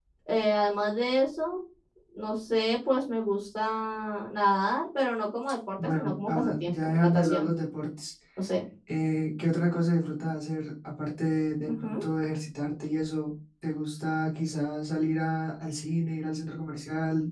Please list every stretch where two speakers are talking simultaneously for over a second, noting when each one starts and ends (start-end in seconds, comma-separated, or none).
5.8-7.5